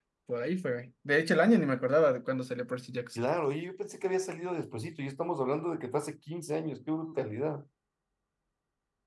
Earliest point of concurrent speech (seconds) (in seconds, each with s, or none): none